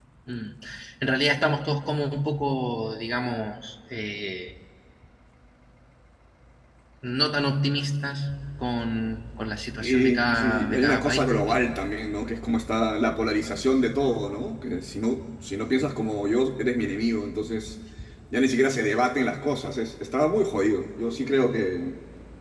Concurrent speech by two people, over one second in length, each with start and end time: 9.8-11.6

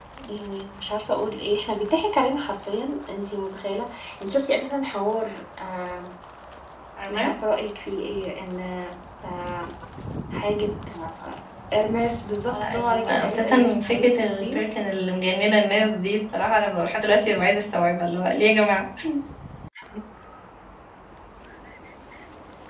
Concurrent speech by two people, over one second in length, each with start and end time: 12.5-14.7

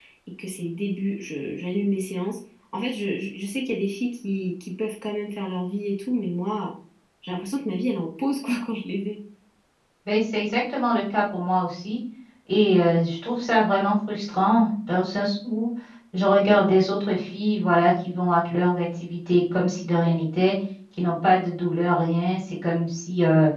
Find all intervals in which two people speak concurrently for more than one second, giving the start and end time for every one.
none

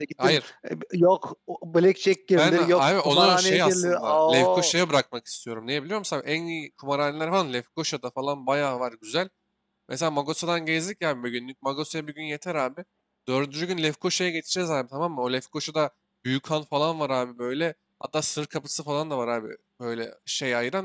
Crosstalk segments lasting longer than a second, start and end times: 2.4-4.7

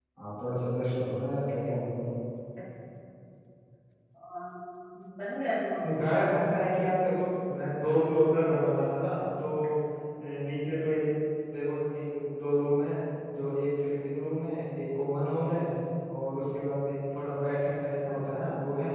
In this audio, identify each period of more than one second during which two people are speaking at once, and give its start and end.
none

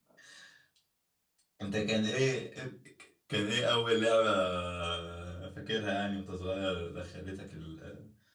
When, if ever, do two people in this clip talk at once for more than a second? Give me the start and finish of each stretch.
none

